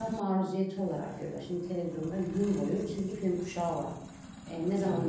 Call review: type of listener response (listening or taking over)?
listening